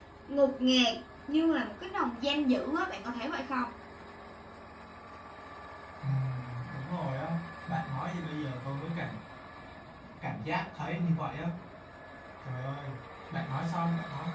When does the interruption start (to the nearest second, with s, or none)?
none